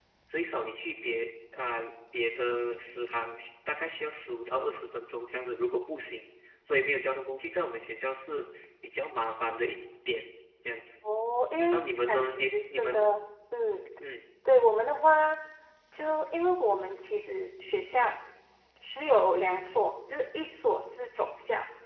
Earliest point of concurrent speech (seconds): 11.7 s

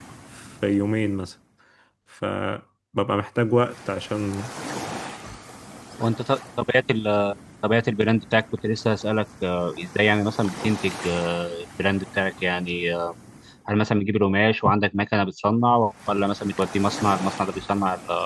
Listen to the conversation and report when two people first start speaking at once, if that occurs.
none

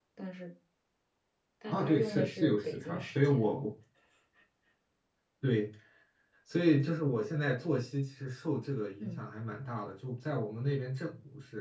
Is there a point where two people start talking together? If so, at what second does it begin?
1.7 s

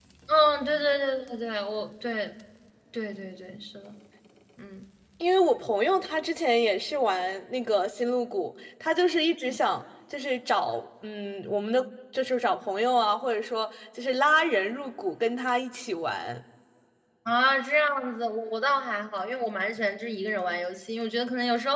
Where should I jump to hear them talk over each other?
none

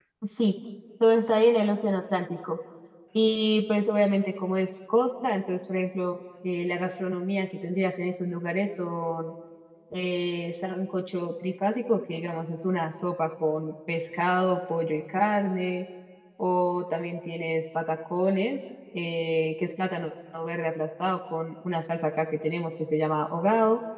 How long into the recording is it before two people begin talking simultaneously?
none

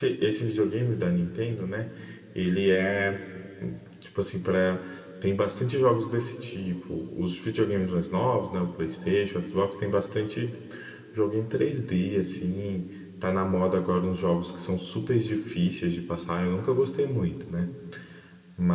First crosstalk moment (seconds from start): none

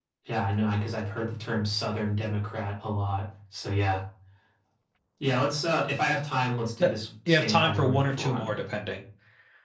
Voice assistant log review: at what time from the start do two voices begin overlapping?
7.3 s

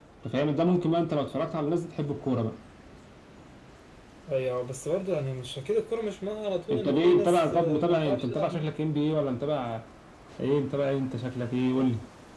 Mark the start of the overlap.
6.7 s

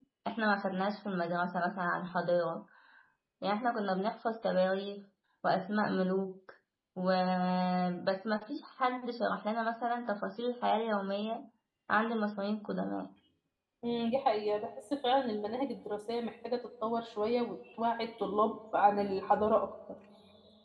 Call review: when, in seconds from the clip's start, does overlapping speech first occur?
none

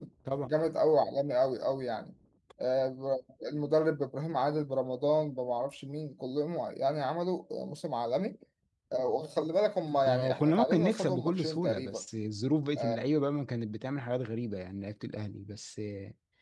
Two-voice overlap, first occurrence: 10.1 s

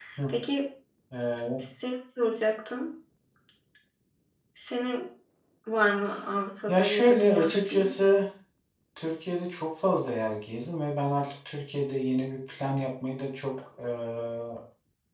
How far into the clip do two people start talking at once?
6.7 s

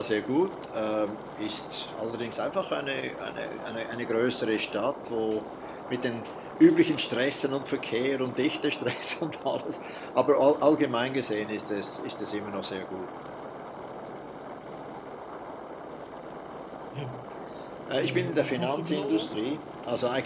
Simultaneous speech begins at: 18.0 s

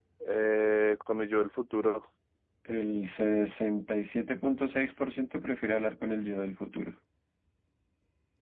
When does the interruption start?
none

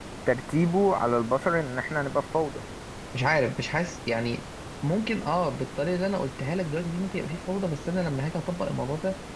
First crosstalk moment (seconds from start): none

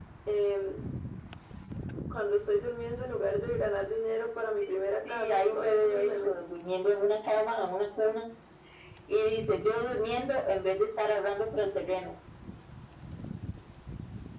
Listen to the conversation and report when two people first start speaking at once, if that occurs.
5.0 s

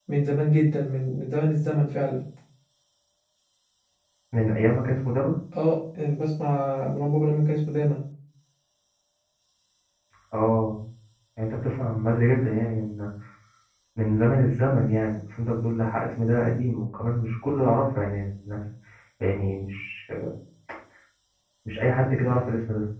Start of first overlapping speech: none

